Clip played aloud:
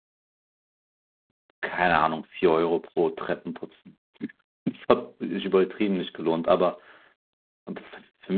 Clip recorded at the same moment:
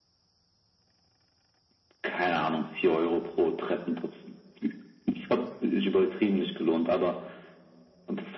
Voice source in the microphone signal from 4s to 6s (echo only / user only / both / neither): echo only